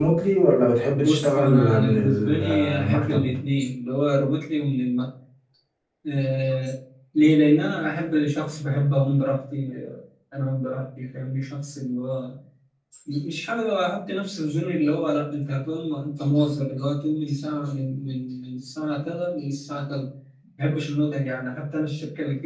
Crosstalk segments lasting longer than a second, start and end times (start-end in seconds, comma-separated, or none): 1.0-3.4